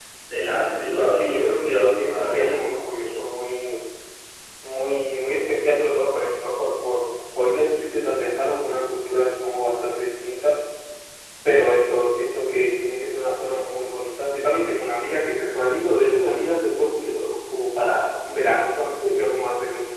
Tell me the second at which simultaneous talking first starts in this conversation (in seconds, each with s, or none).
1.0 s